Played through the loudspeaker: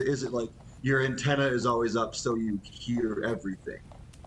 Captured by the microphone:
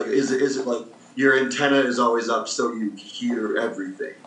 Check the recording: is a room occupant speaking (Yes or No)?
No